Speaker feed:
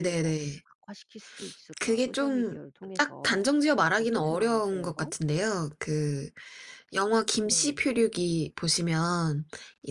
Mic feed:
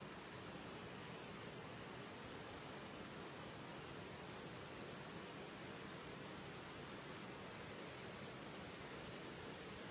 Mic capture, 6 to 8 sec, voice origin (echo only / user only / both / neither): neither